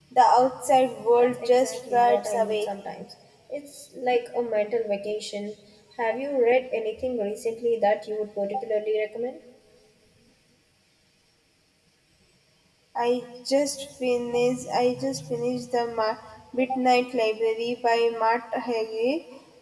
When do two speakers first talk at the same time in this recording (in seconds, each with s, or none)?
1.2 s